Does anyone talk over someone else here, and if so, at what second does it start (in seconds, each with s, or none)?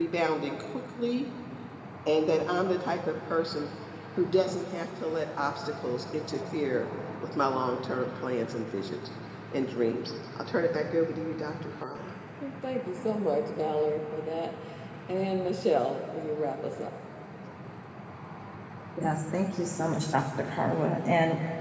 none